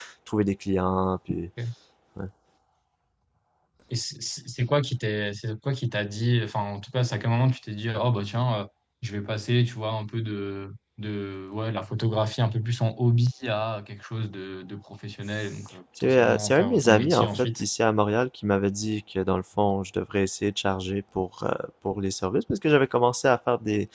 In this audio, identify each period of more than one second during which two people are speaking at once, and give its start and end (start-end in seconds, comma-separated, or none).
16.0-17.6